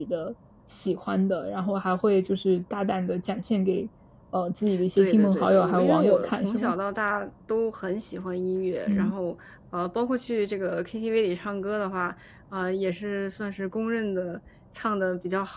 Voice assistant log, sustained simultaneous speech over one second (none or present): present